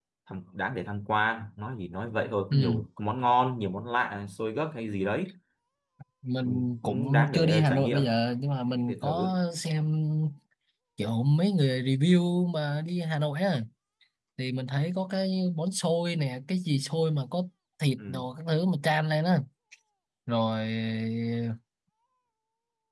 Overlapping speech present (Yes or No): Yes